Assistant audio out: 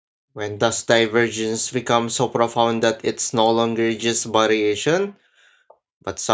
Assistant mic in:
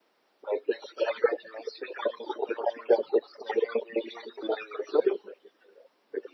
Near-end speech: none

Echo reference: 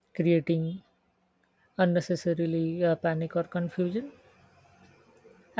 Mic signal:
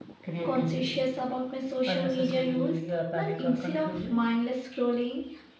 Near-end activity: present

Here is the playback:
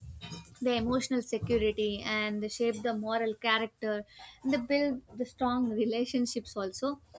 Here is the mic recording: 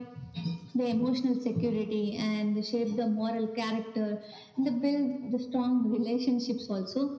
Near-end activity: none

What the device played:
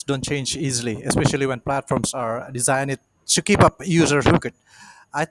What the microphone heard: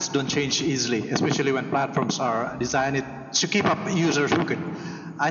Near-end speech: none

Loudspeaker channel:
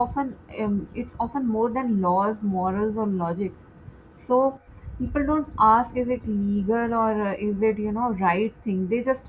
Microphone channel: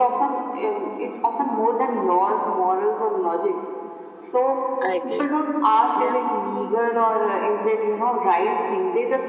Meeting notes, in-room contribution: present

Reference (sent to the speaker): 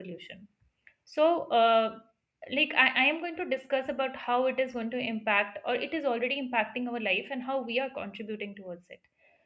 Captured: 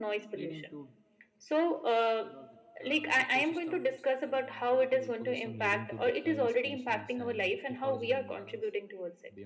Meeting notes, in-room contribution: present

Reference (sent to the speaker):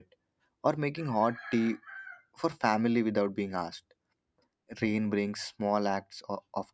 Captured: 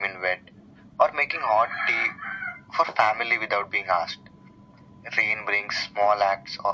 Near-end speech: none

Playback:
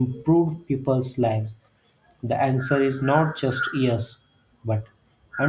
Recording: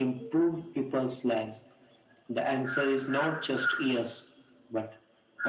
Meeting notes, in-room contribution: none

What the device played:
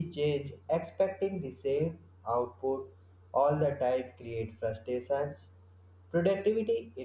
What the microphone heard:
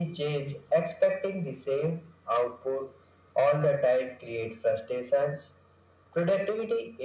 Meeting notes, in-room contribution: none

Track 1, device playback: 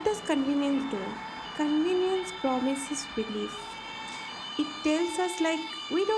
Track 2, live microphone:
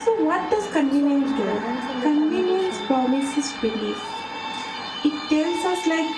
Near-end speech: present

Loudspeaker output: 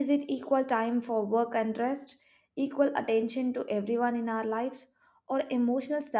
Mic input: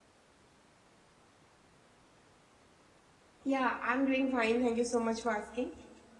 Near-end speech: present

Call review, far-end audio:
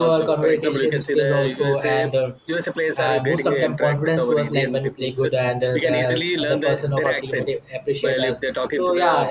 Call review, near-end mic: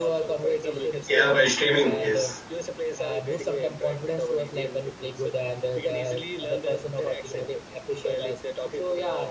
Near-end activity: present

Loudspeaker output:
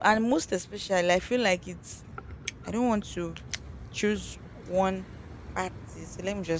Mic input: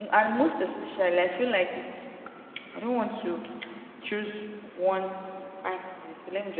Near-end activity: none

